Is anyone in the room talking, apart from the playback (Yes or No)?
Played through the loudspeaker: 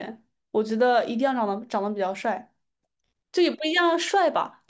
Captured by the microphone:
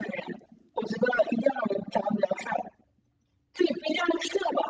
No